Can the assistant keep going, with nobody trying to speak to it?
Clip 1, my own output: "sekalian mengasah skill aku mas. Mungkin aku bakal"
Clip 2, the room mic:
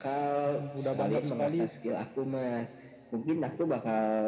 No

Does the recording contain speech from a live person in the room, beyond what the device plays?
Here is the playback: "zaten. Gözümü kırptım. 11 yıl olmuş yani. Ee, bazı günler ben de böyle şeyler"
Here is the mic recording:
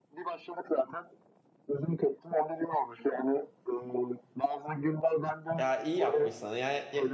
Yes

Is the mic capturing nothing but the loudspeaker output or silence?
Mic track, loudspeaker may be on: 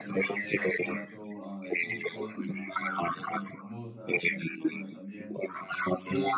No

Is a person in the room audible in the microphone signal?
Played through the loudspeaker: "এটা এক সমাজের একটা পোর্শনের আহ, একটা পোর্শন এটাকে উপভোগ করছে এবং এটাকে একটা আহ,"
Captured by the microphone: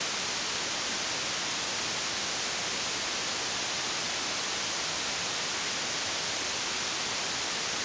No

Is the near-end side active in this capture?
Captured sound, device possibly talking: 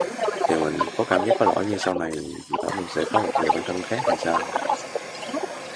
Yes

